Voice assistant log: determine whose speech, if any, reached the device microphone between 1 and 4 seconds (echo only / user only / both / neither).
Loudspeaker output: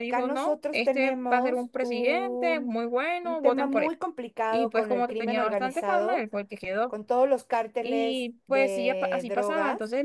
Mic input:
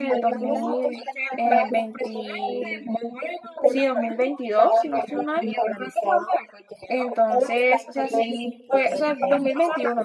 both